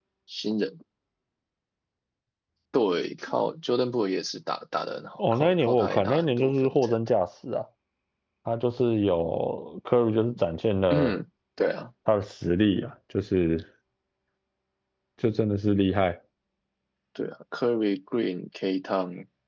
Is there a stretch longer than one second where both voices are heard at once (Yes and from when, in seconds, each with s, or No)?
Yes, from 5.2 s